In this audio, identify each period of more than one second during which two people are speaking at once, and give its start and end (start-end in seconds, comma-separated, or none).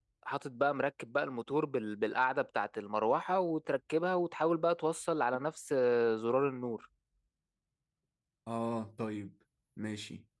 none